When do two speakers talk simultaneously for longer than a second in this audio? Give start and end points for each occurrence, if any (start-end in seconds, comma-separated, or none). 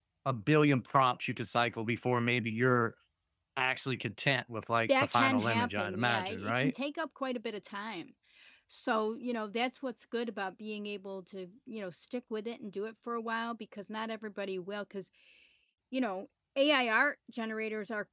5.0-6.7